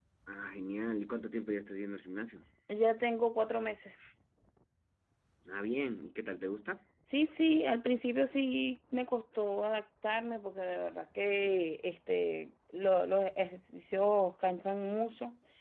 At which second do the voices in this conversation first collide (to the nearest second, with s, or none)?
none